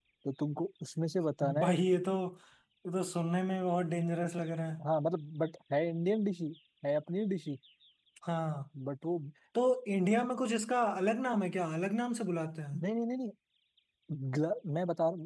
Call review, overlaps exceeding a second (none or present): none